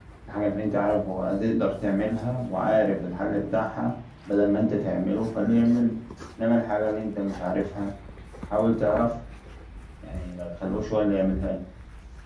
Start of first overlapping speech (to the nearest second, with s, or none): none